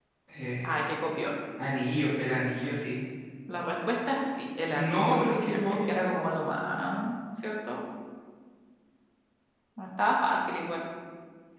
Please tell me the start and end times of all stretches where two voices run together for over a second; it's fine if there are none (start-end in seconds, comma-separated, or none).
4.7-6.0